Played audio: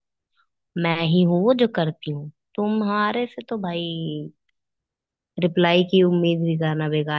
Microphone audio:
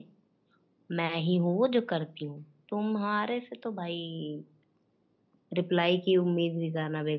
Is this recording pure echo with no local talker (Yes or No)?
Yes